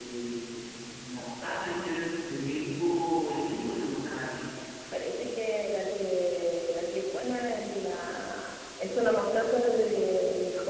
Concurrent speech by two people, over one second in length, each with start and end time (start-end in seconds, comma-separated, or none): none